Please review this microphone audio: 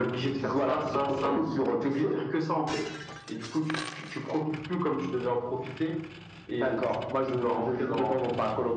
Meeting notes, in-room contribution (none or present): none